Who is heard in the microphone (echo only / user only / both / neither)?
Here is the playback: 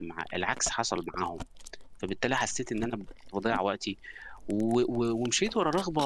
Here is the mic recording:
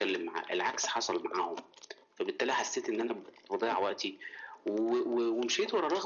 echo only